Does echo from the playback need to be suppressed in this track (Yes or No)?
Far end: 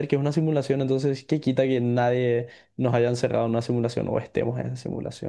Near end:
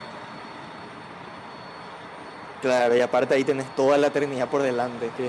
No